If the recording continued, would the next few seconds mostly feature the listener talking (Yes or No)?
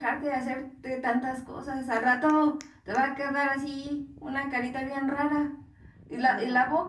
No